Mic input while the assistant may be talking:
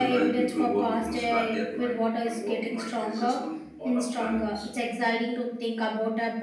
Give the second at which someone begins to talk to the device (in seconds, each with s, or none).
none